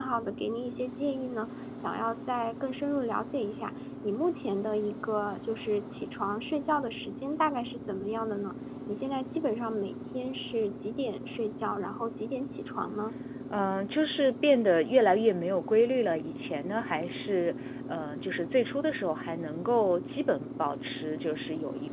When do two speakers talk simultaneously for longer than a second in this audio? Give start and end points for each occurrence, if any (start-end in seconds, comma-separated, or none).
none